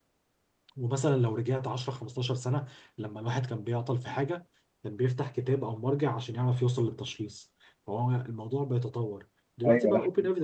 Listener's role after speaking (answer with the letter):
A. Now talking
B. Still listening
B